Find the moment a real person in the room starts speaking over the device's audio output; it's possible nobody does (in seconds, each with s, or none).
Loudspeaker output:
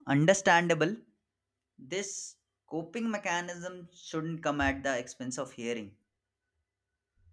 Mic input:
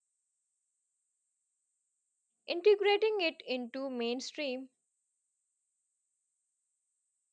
2.4 s